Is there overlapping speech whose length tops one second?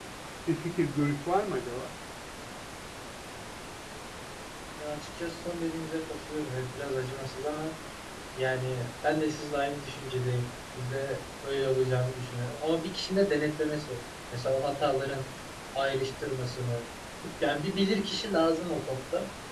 No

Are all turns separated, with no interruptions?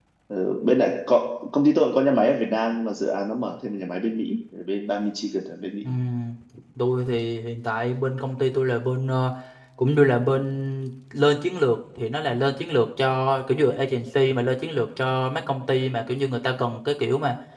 Yes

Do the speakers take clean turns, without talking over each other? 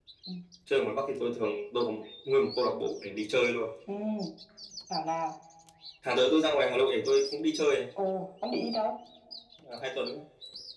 Yes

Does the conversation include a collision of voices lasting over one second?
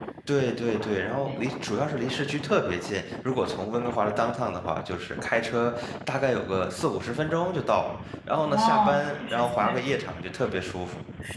Yes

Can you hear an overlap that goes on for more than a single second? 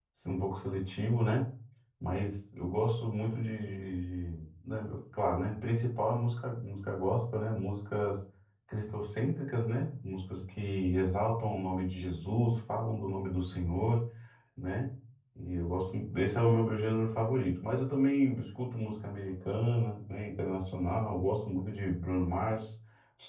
No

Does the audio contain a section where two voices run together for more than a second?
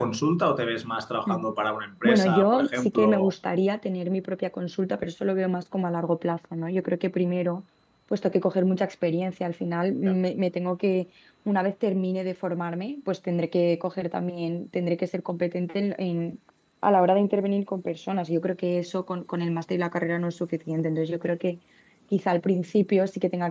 Yes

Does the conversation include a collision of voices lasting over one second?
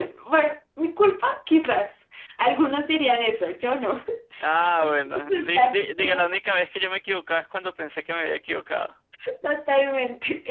Yes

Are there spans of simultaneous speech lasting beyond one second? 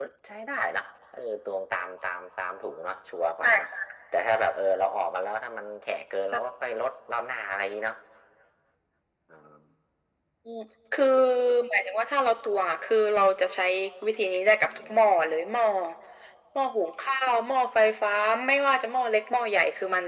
No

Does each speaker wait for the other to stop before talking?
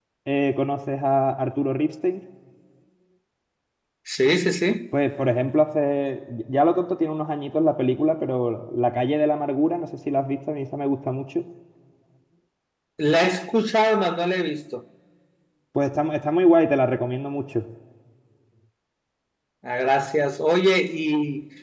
Yes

